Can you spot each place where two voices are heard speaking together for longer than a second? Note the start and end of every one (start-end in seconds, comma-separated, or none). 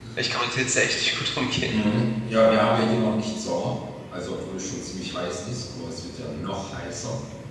none